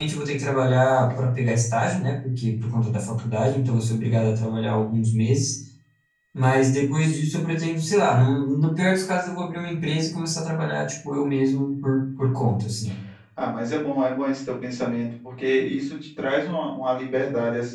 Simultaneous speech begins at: none

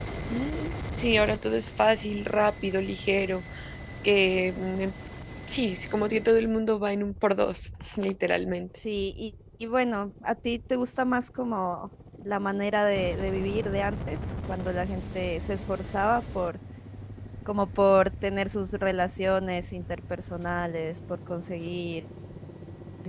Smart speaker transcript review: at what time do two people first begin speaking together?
none

